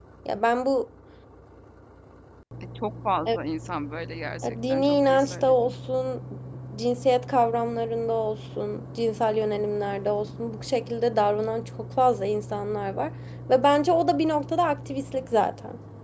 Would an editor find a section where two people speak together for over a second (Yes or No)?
Yes